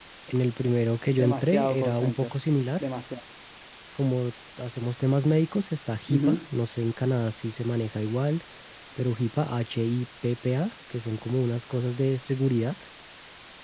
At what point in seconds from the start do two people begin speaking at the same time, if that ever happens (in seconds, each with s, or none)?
1.1 s